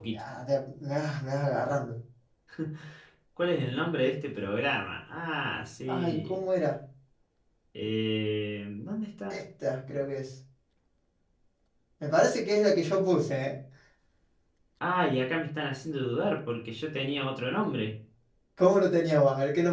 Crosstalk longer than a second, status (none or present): none